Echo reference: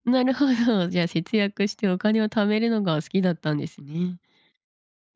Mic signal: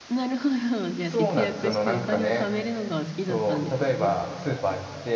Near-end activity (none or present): present